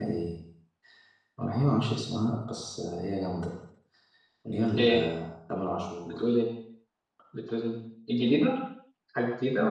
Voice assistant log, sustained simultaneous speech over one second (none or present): none